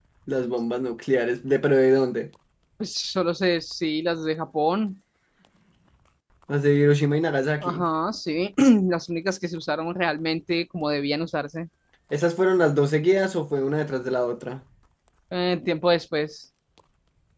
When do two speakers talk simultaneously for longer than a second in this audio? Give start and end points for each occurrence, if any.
none

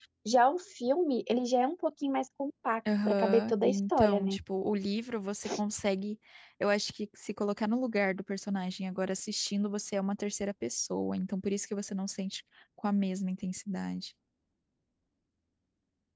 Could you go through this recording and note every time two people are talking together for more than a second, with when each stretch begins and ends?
3.0-4.4

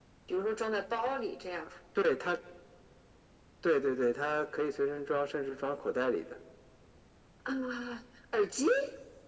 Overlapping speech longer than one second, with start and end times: none

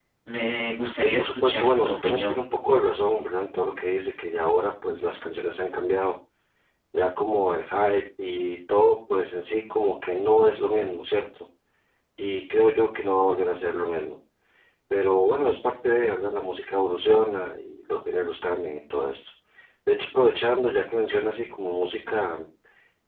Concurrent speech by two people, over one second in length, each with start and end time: 0.9-2.4

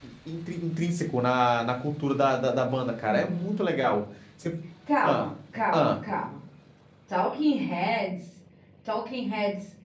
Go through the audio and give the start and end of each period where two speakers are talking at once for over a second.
none

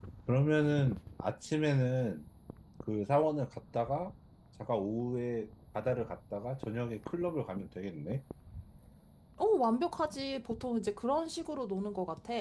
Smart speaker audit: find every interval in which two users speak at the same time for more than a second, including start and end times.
none

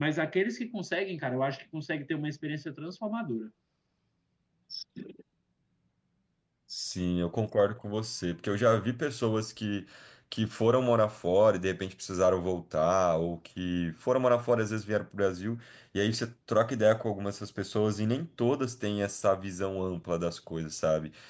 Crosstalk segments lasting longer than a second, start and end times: none

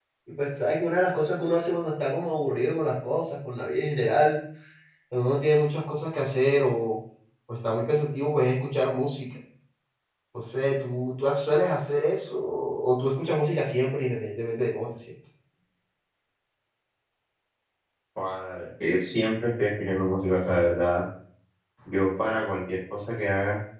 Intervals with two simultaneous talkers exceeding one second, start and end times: none

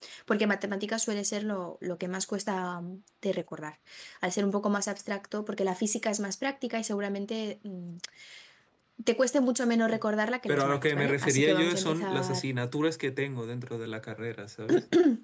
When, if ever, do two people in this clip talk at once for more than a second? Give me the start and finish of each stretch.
10.5-12.4

